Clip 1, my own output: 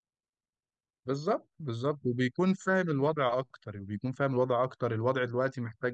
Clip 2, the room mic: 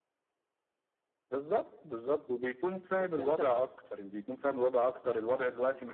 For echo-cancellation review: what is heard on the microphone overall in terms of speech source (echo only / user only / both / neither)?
both